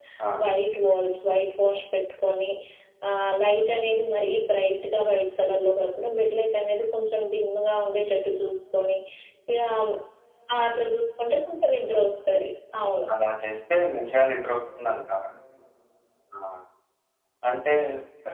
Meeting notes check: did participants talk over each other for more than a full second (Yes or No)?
No